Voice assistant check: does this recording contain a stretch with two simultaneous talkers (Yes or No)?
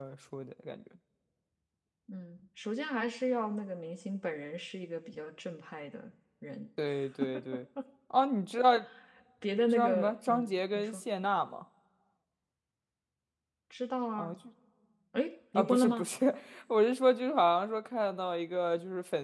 Yes